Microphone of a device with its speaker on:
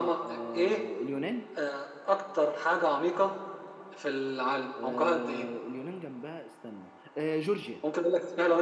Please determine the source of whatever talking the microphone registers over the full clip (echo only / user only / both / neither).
both